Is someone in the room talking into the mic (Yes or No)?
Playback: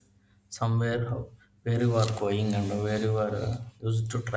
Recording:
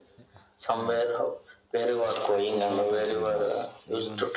Yes